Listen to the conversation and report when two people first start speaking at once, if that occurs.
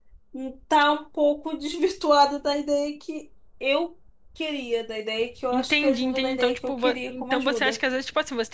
5.5 s

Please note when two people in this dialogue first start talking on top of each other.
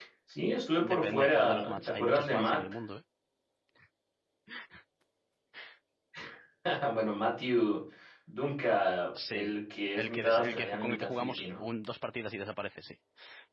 0.9 s

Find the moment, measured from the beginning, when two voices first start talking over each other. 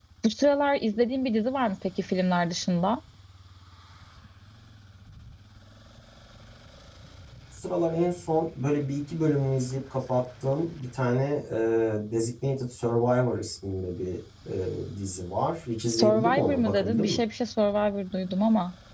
15.9 s

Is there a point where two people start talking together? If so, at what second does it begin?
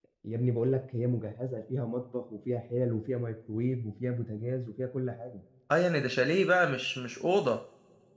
none

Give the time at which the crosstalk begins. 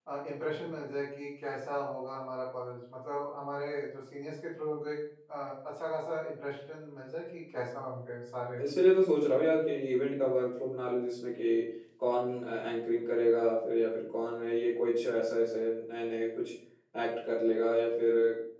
none

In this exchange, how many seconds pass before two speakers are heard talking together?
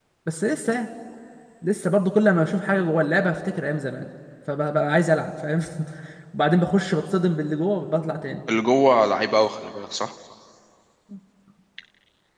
none

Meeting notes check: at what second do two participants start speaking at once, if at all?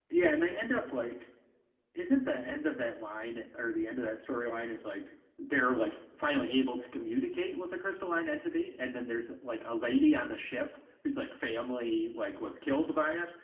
none

